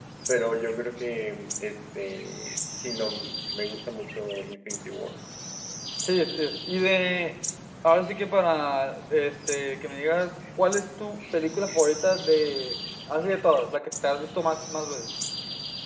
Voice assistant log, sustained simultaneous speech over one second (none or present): none